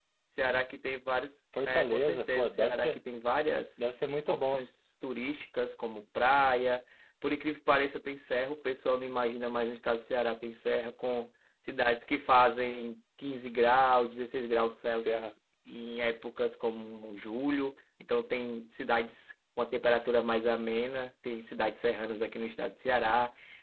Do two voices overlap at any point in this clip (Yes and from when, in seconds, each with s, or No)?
Yes, from 1.6 s